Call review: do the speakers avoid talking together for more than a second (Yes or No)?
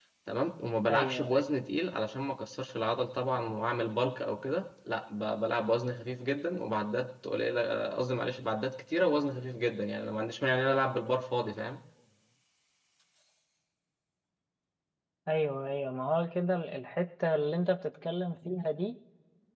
Yes